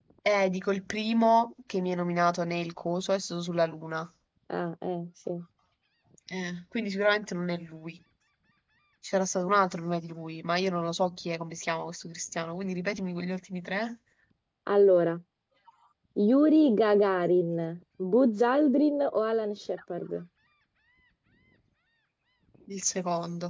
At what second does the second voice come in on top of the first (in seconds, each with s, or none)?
none